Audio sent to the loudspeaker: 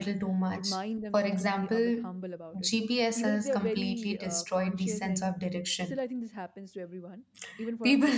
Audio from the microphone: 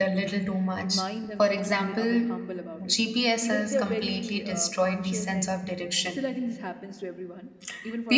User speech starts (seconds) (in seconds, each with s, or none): none